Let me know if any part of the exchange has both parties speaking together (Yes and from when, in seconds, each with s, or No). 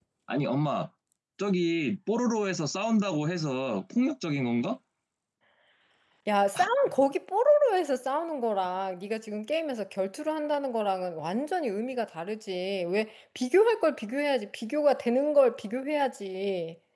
No